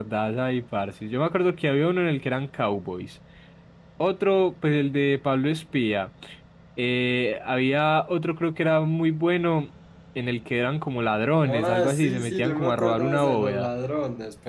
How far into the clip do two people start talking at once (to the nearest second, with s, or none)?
11 s